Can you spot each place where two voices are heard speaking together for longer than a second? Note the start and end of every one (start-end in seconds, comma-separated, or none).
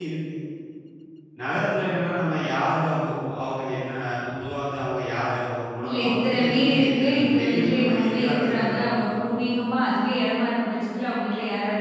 5.8-9.1